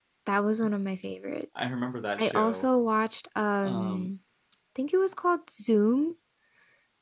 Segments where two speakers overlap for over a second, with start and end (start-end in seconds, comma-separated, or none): none